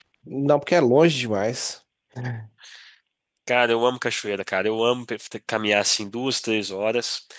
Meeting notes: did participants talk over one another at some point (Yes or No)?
No